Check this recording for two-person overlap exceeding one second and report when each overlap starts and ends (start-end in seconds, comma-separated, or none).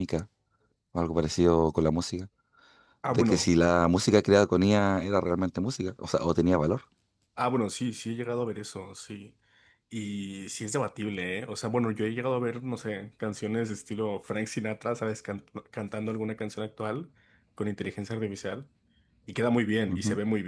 none